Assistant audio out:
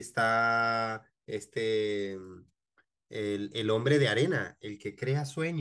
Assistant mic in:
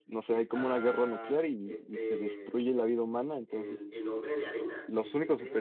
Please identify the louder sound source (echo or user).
user